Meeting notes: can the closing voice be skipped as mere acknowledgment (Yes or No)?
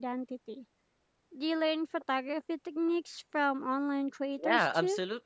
No